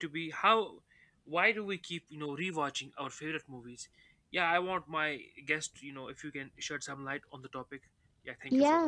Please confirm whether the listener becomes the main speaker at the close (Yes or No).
Yes